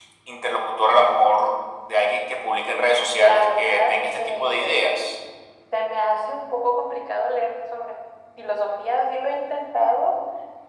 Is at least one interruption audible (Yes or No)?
Yes